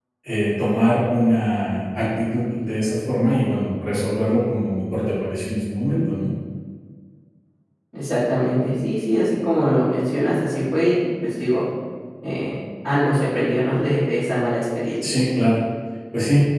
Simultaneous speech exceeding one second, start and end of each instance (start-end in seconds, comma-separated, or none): none